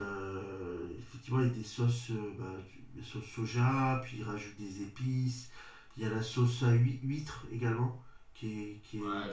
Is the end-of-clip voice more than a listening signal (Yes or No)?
Yes